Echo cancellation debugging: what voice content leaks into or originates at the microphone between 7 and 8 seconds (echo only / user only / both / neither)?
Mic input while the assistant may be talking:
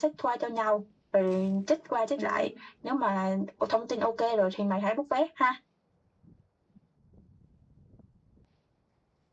neither